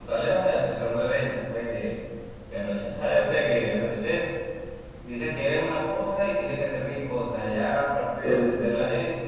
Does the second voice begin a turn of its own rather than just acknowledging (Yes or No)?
No